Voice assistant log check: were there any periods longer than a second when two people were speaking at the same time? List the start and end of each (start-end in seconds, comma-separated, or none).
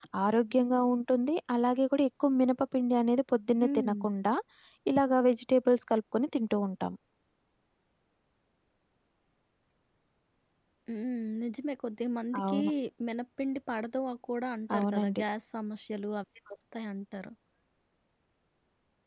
none